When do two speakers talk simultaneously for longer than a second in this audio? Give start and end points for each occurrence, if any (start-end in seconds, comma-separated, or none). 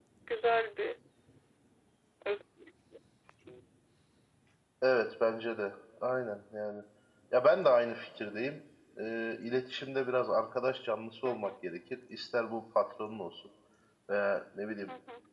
none